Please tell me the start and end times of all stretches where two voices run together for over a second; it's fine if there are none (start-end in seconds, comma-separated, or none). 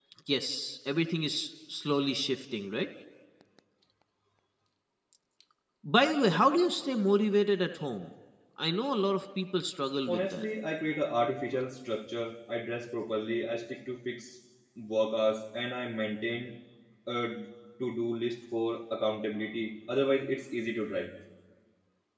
none